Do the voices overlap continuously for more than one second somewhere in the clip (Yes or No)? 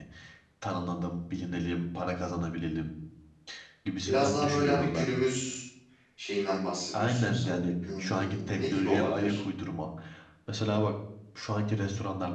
Yes